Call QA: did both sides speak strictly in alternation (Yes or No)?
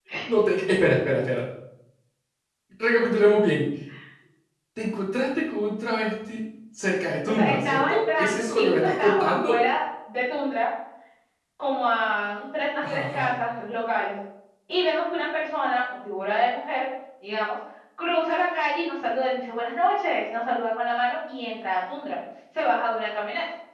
No